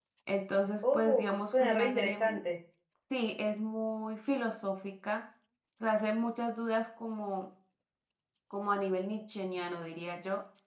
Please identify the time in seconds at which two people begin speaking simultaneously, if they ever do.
0.8 s

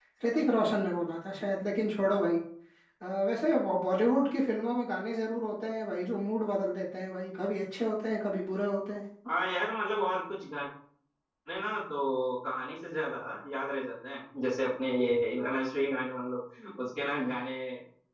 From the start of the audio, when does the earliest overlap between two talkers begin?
none

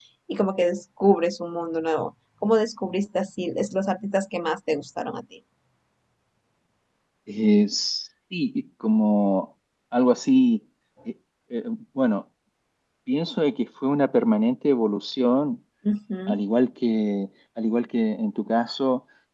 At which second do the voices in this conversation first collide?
none

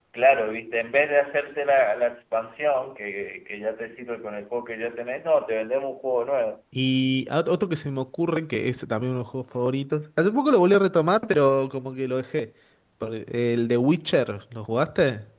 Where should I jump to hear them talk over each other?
none

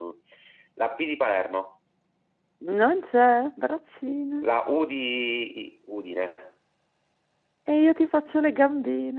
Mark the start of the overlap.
none

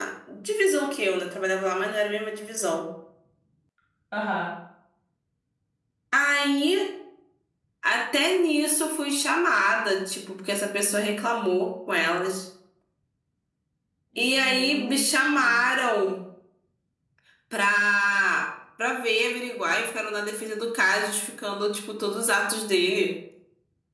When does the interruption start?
14.3 s

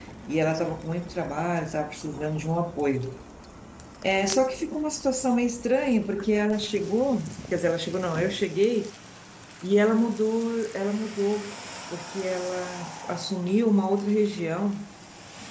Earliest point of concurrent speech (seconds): none

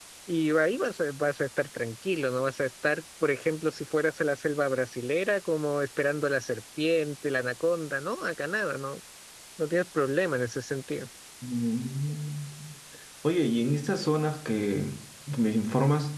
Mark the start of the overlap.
none

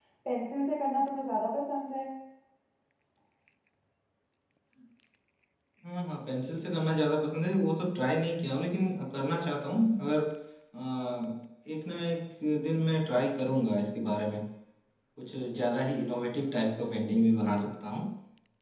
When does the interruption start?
none

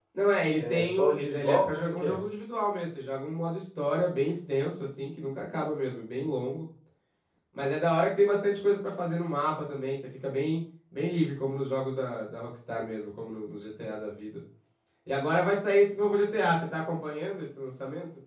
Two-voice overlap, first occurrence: 0.6 s

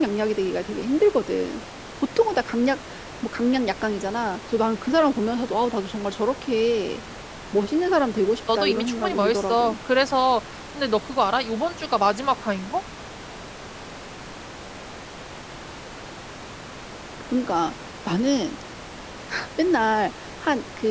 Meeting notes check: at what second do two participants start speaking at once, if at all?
8.5 s

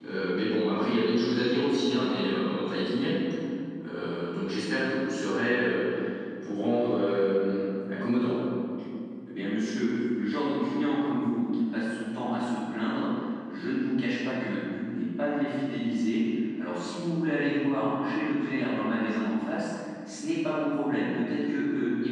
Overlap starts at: none

